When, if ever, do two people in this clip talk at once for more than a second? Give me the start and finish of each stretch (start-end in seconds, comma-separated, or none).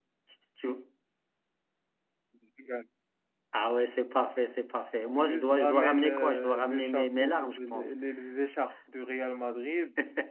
5.1-7.9